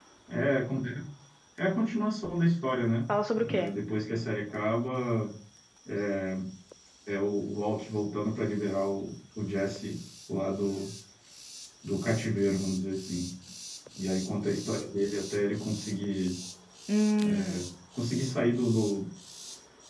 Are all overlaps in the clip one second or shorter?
Yes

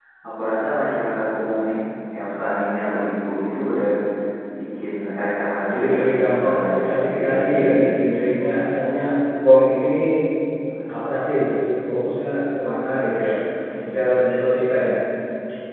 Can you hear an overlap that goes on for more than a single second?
Yes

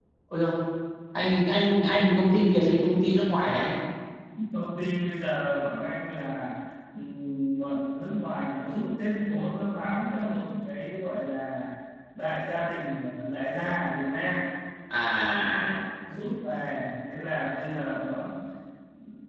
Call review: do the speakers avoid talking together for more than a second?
Yes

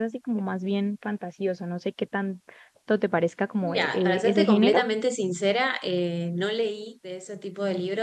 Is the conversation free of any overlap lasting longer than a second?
No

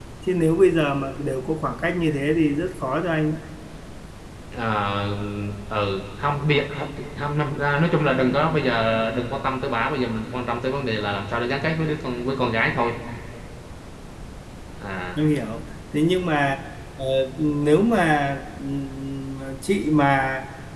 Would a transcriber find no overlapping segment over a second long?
Yes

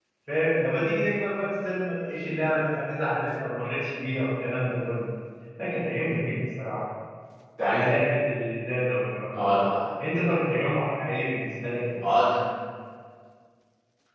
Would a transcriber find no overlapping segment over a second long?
Yes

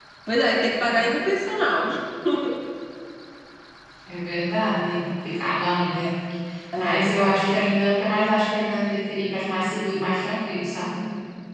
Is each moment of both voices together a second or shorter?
Yes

